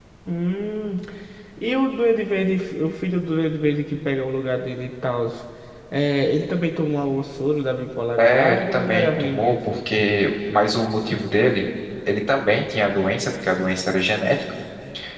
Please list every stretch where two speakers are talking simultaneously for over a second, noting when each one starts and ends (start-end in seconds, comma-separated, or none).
8.2-9.8